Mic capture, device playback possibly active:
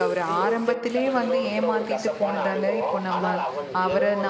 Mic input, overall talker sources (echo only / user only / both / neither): both